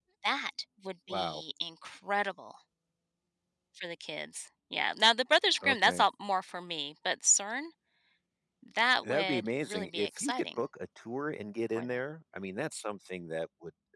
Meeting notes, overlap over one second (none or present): present